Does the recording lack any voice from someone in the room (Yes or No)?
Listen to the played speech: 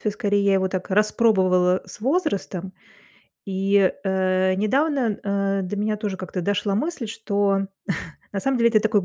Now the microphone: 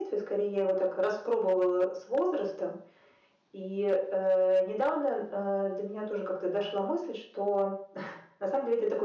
Yes